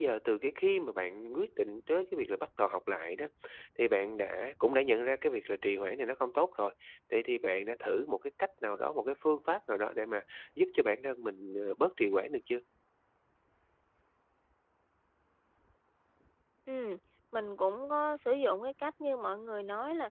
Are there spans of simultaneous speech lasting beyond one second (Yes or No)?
No